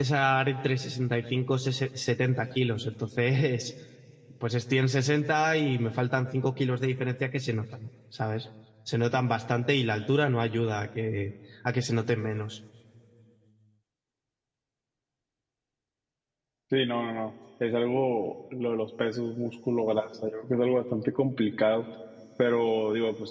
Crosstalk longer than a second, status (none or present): none